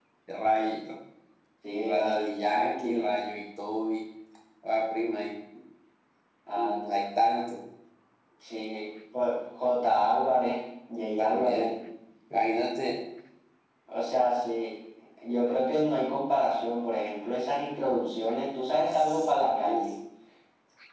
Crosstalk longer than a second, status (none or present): present